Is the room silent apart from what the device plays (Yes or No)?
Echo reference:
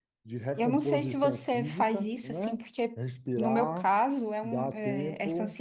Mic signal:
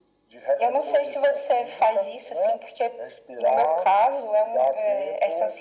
Yes